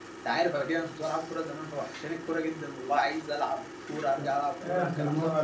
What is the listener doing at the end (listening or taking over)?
taking over